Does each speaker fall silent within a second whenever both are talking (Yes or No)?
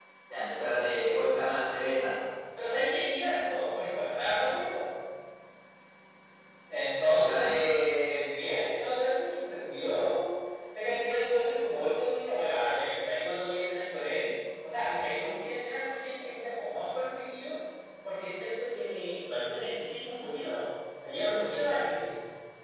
Yes